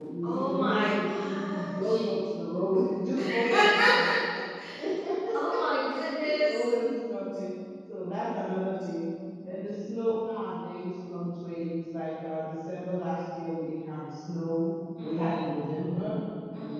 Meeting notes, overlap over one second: present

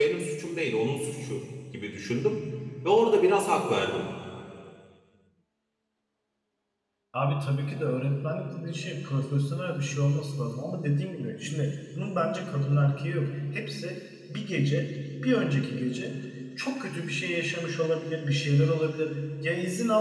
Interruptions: none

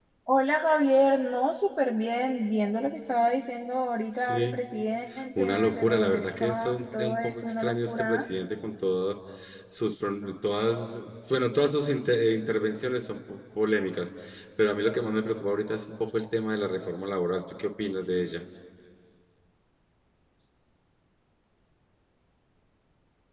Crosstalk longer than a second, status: present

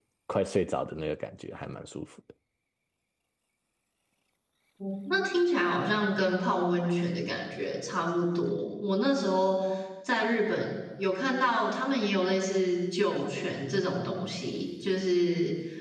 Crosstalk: none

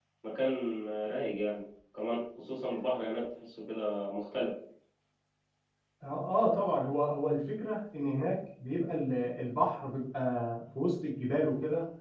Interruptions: none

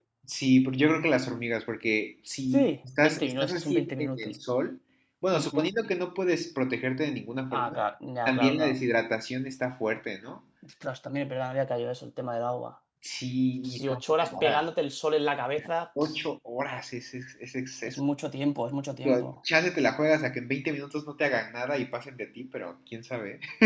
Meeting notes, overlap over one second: present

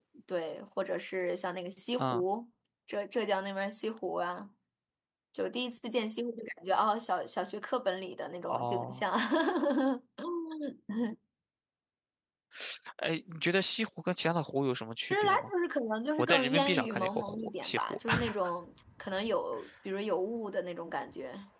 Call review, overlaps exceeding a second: present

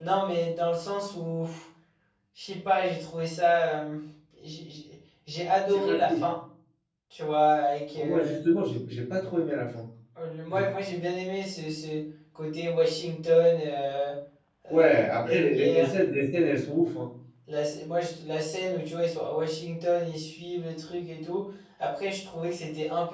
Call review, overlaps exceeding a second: present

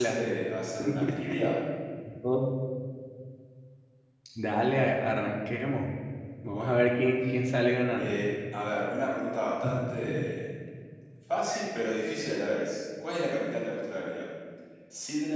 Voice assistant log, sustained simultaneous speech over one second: none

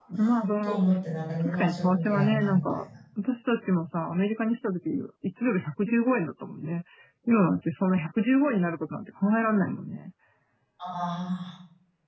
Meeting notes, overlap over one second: present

